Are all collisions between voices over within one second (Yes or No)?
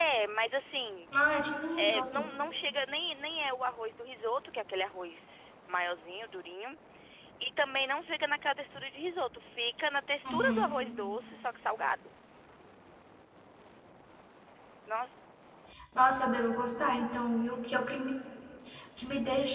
Yes